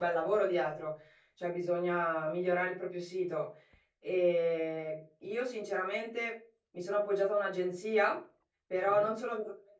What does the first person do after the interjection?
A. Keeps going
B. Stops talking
A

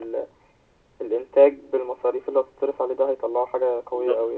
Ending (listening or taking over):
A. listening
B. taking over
B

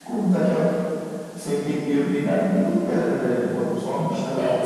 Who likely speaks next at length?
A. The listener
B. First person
A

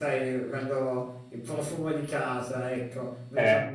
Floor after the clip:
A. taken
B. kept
B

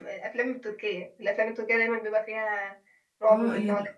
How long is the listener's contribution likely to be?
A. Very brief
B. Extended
B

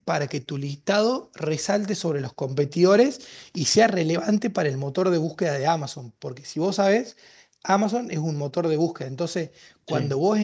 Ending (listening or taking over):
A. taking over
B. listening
B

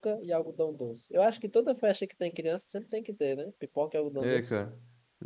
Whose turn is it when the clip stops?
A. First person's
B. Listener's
B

